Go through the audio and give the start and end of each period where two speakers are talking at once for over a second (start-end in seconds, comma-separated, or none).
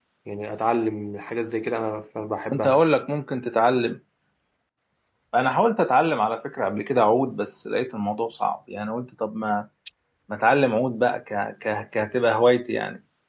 none